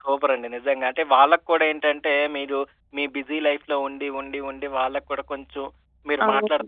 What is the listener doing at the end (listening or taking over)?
listening